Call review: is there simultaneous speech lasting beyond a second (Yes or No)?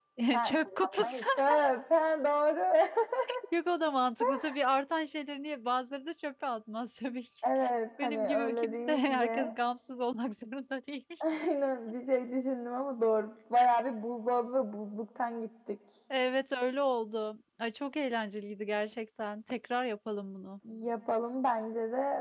Yes